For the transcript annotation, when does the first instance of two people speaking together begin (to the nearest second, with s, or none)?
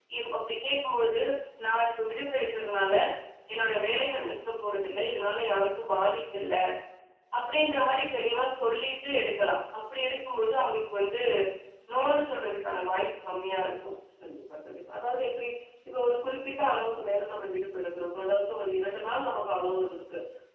none